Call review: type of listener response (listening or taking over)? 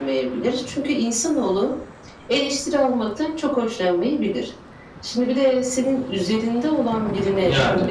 listening